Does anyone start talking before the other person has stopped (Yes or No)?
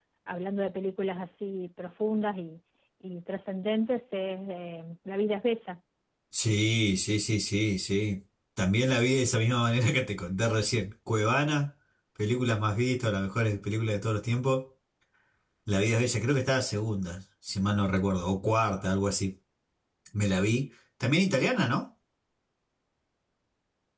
No